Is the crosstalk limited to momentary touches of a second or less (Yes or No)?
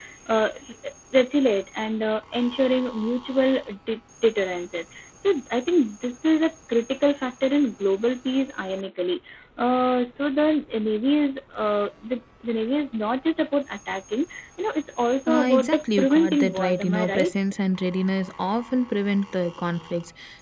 No